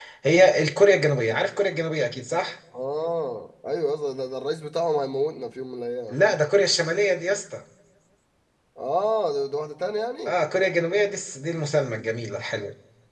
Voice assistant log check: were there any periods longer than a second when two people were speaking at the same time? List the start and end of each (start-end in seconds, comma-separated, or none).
none